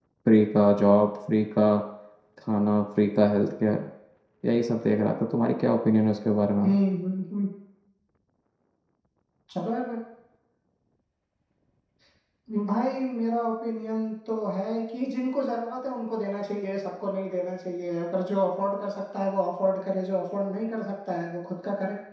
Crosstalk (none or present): none